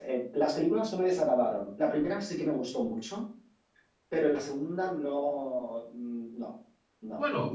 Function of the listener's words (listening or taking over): taking over